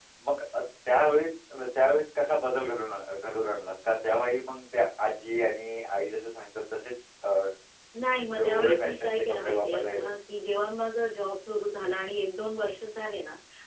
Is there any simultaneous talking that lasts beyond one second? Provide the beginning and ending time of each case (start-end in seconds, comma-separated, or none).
8.4-10.1